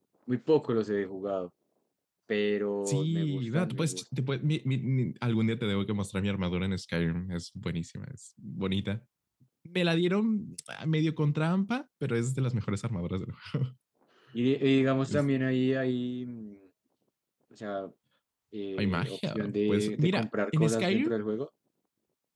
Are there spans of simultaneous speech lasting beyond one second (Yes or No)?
Yes